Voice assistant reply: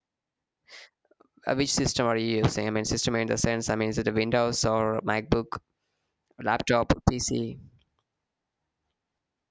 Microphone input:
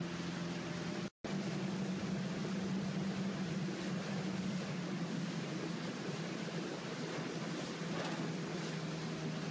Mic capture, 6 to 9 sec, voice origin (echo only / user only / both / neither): neither